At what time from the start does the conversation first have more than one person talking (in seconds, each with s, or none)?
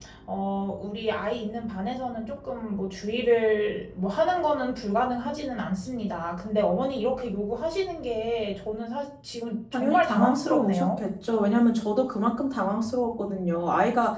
9.7 s